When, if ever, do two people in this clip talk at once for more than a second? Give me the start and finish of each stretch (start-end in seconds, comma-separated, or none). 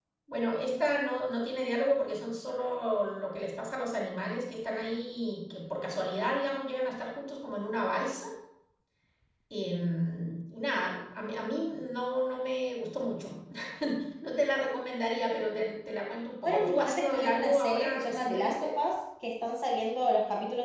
16.4-18.7